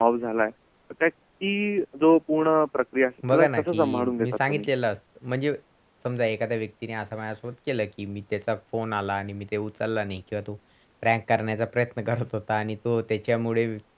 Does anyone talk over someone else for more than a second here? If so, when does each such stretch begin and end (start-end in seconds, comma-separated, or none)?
3.3-4.7